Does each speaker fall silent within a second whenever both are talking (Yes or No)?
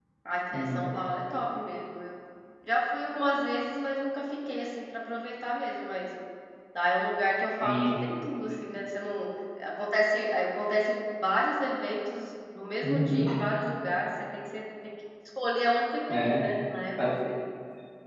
Yes